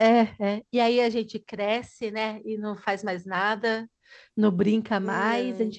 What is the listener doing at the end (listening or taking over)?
listening